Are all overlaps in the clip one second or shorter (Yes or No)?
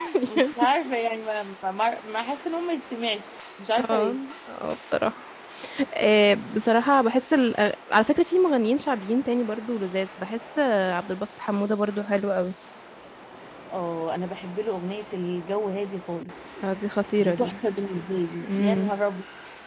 Yes